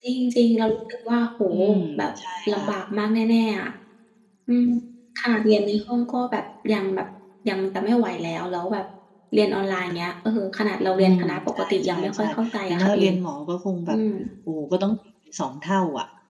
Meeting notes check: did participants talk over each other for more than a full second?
Yes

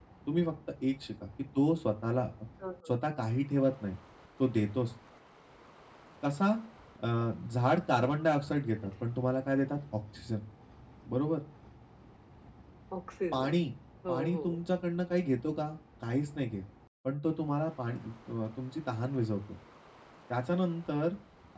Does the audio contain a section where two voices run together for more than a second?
No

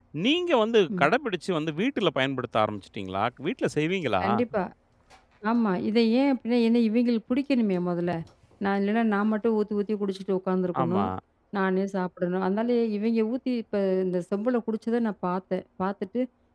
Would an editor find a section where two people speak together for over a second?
No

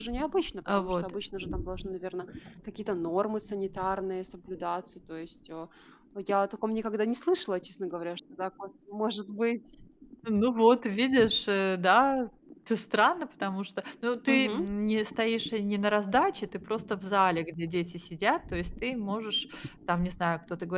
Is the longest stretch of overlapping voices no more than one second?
Yes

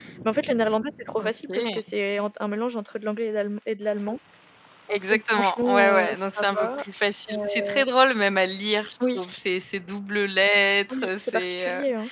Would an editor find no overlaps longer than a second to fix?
No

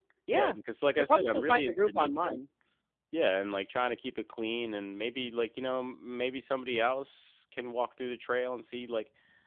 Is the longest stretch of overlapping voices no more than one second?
No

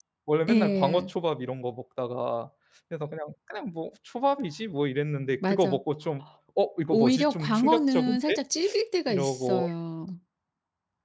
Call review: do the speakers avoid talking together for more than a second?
No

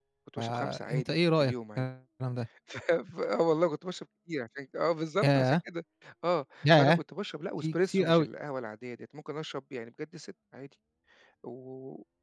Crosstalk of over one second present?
Yes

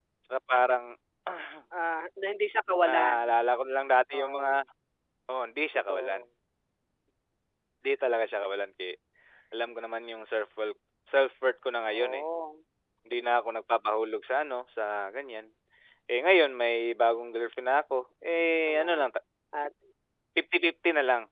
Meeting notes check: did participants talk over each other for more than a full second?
No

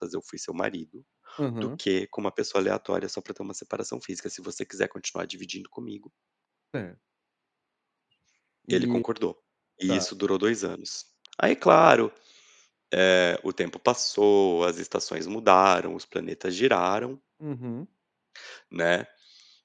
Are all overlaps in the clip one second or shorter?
Yes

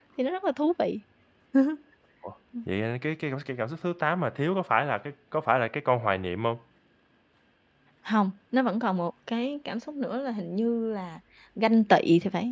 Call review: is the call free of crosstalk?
Yes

